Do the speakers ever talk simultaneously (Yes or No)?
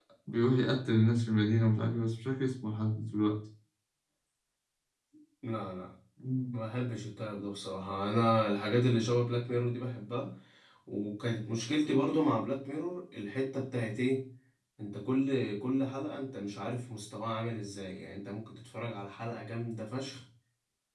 No